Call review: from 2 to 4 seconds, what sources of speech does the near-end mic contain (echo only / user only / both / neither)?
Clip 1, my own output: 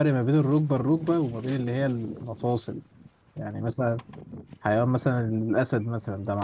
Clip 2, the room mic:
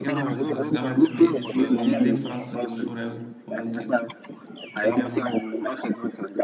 both